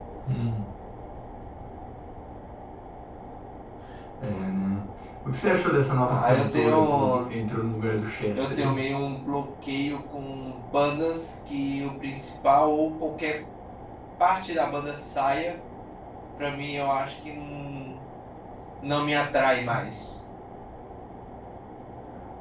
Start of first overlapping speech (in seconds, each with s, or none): 6.0 s